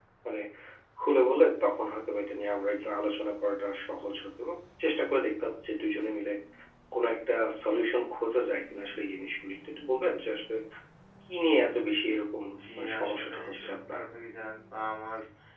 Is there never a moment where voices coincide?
No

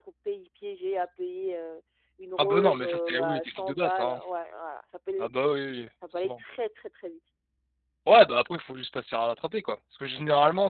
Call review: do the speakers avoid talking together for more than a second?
No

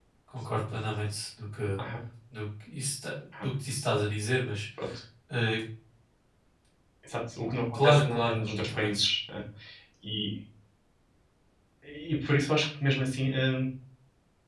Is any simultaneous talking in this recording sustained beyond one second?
Yes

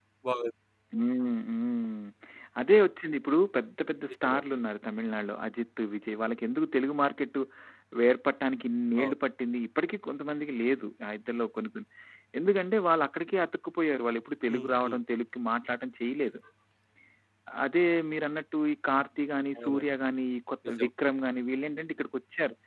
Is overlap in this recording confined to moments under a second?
Yes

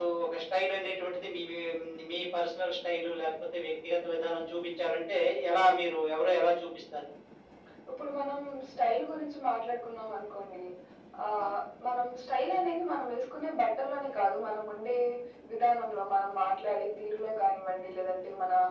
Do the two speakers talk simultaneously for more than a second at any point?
No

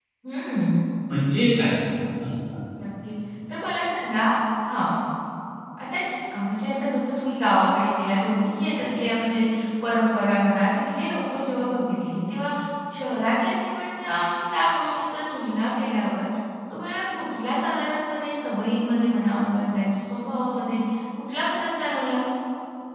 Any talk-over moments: No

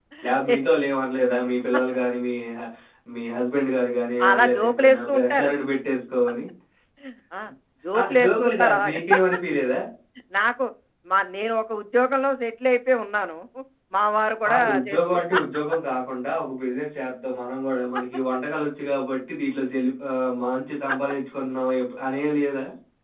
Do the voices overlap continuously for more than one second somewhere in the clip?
Yes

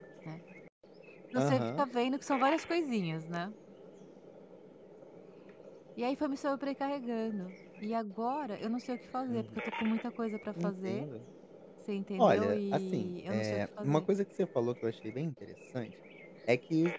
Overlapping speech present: Yes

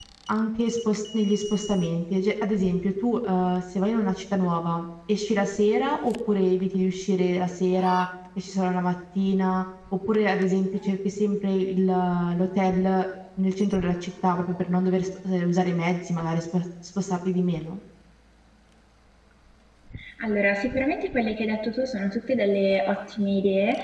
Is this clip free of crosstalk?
Yes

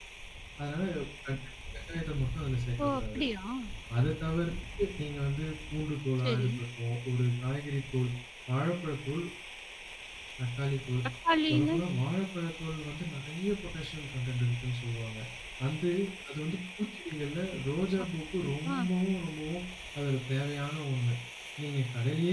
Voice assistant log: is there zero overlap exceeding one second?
Yes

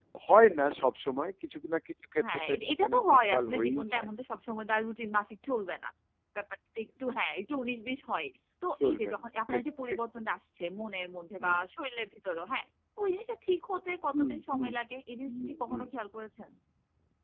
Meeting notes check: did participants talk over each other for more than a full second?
Yes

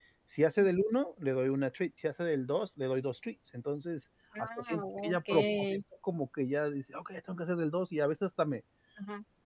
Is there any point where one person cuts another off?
Yes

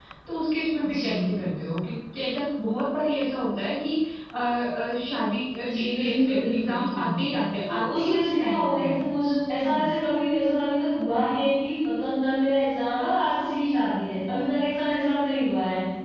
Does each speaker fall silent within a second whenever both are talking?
No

